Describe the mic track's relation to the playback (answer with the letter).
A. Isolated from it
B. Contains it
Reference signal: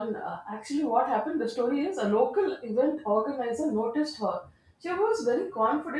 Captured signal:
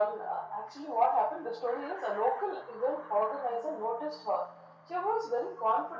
B